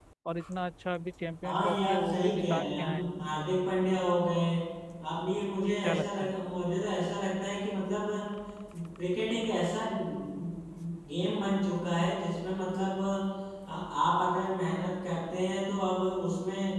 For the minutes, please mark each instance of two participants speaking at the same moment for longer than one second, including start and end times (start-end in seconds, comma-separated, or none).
1.4-3.1